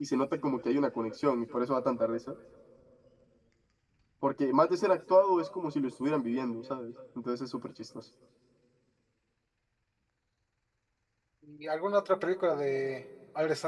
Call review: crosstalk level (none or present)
none